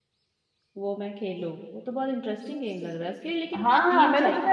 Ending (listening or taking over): taking over